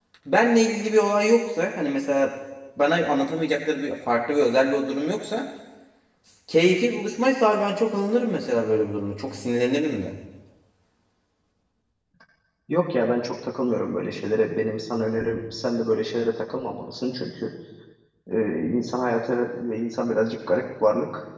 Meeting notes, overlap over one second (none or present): none